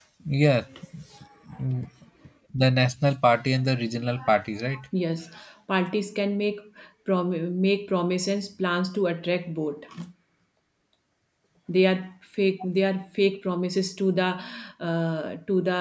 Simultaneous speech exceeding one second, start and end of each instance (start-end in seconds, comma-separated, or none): none